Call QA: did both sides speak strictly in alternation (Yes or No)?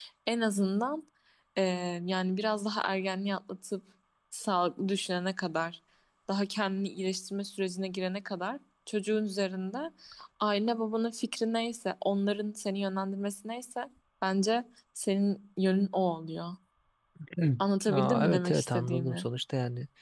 No